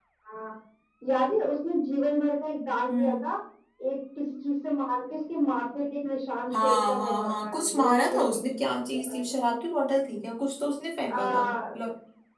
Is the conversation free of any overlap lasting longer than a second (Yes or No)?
No